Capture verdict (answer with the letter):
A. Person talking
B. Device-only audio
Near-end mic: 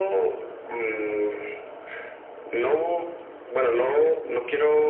B